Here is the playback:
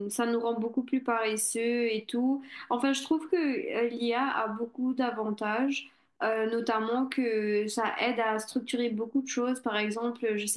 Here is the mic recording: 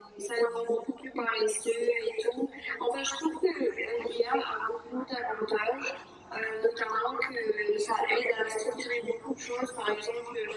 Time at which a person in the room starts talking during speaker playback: none

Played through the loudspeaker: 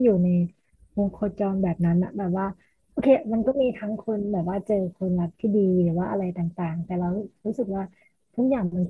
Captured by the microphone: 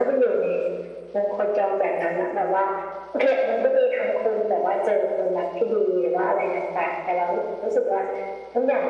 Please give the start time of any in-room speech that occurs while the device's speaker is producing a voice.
none

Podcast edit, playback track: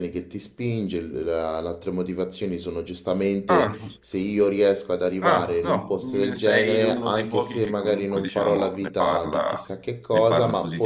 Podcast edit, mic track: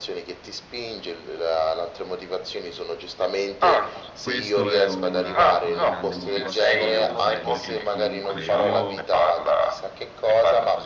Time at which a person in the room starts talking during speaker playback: 4.2 s

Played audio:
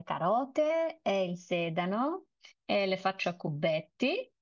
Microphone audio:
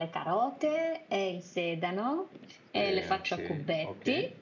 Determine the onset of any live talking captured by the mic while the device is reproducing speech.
2.6 s

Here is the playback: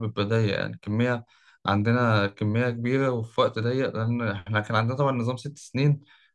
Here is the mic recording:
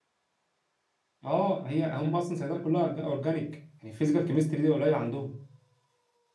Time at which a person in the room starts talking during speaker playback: 1.2 s

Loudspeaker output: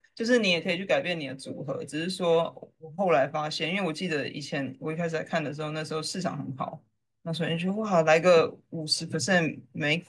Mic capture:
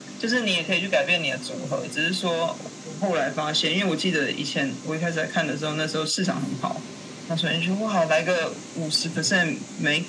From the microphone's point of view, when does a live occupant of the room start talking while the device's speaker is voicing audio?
none

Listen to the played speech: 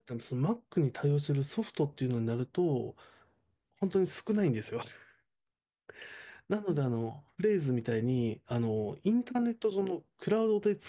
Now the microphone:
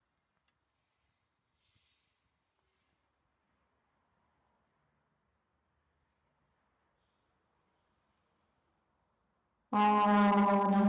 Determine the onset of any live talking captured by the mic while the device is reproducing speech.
9.7 s

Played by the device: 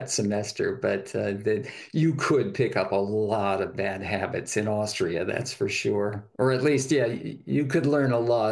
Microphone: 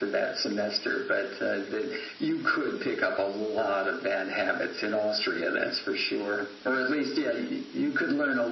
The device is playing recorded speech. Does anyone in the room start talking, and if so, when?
none

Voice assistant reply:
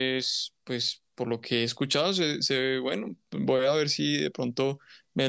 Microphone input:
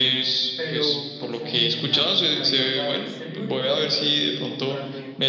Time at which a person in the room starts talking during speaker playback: 0.5 s

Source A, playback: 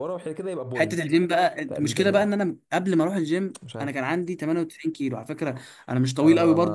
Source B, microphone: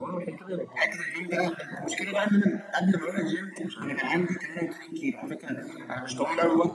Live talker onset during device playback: none

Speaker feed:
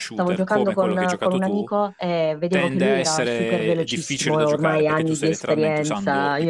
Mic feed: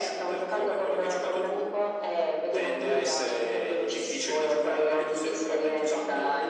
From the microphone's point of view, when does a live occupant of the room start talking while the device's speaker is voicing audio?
none

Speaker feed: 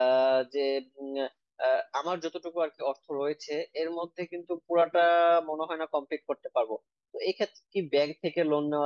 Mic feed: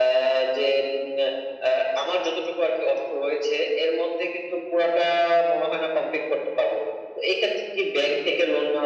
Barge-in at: none

